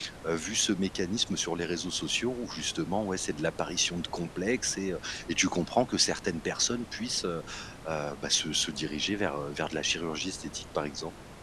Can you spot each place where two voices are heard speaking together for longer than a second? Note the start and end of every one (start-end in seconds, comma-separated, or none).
none